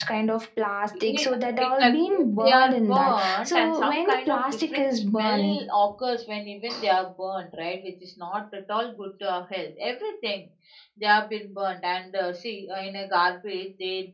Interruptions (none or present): present